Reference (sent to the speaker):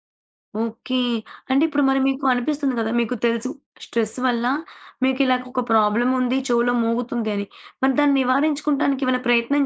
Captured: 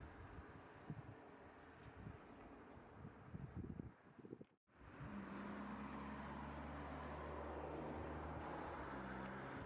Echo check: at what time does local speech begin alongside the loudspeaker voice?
none

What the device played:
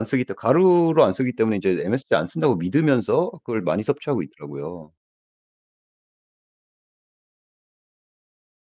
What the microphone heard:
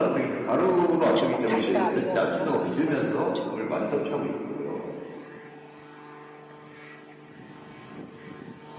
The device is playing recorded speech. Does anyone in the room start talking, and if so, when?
1.0 s

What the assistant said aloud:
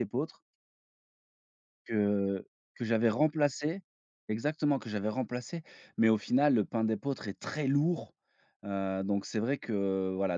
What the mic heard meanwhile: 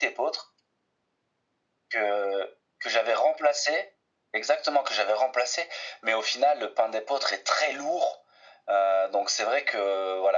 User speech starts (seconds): none

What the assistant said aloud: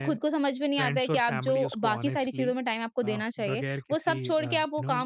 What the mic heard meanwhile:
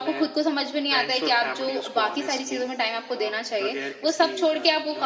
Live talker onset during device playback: none

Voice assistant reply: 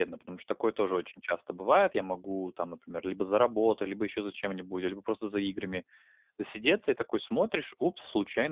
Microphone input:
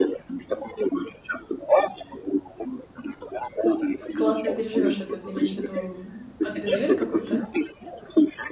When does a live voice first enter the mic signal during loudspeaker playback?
4.1 s

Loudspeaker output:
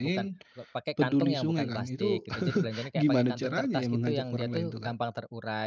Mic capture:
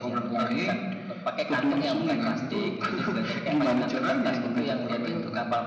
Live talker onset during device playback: none

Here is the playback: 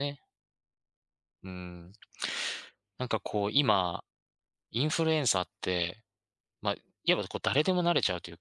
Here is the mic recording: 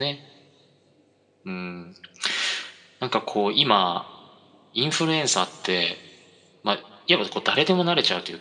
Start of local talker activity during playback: none

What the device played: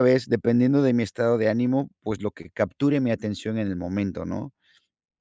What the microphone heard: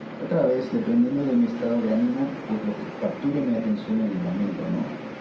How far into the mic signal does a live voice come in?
none

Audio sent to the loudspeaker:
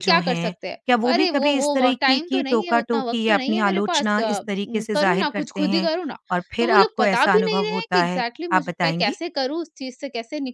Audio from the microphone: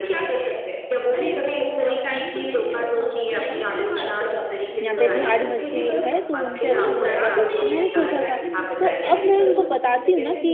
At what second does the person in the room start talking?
4.8 s

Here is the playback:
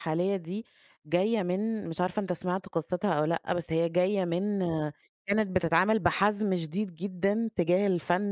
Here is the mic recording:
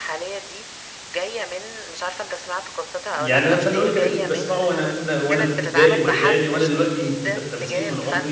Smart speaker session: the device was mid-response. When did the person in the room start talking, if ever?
3.1 s

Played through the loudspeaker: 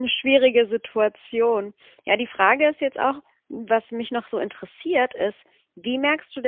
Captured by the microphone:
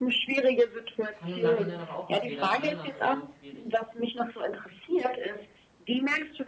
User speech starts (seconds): 1.1 s

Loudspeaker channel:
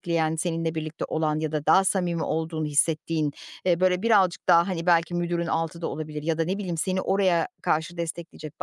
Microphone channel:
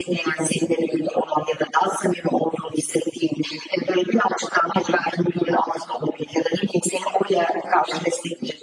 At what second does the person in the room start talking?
none

